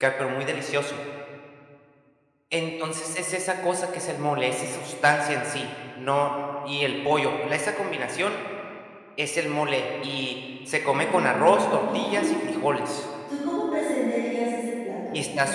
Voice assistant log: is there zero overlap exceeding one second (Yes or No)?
No